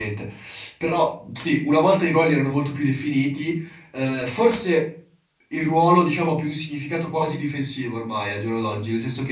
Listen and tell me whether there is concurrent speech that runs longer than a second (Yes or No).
No